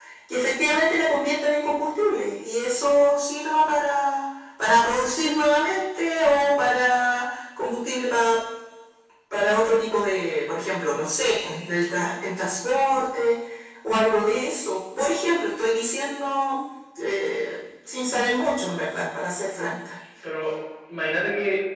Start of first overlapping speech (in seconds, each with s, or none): none